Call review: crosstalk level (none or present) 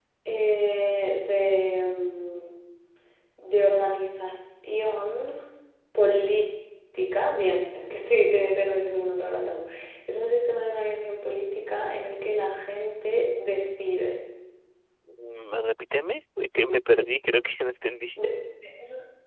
none